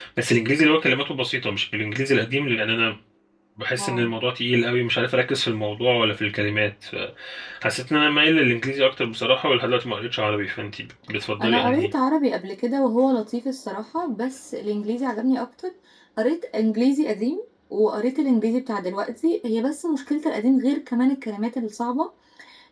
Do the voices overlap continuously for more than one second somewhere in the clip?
No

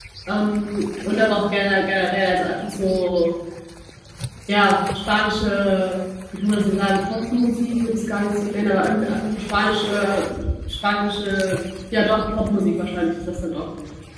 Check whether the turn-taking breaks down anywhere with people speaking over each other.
No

